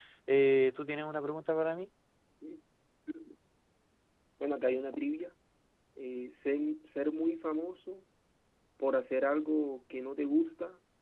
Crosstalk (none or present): none